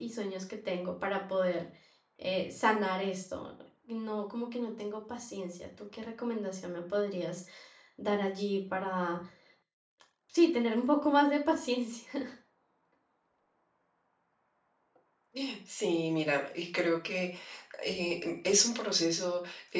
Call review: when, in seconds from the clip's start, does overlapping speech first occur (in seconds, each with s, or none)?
none